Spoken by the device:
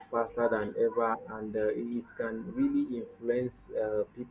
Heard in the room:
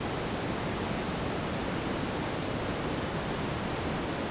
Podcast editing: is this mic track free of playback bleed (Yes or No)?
Yes